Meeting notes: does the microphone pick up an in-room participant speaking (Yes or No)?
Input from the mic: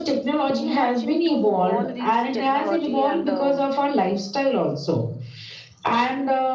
Yes